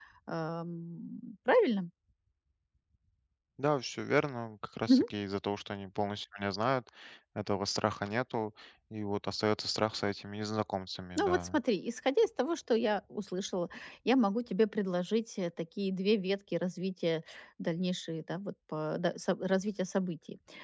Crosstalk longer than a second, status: none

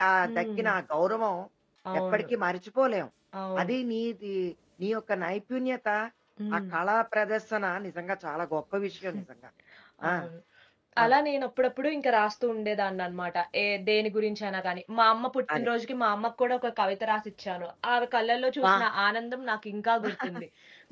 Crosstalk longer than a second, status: none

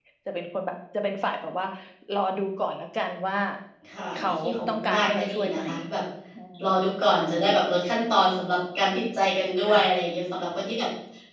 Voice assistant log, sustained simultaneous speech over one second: present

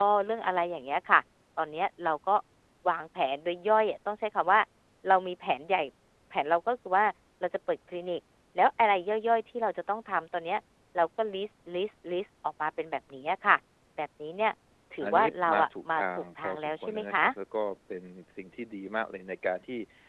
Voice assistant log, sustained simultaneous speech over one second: present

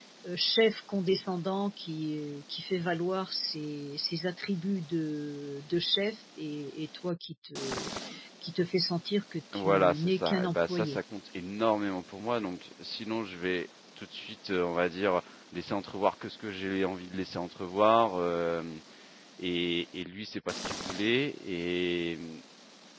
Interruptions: present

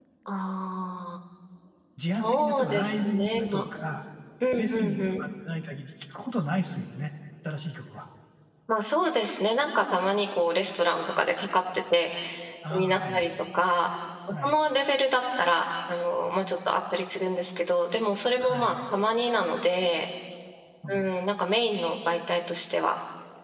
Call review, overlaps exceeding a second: present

